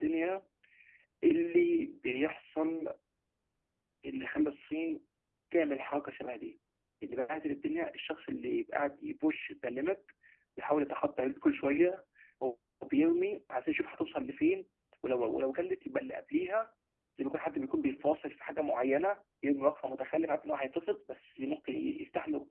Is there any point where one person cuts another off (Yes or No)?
No